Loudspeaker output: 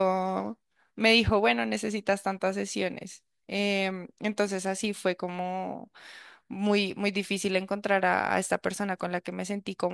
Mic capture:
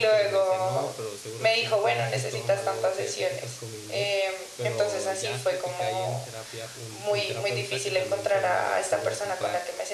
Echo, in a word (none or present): present